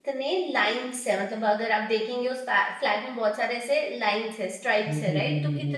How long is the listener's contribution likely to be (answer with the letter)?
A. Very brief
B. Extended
A